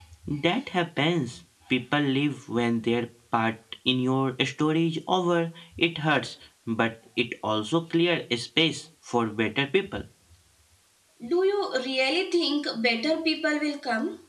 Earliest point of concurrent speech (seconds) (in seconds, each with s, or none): none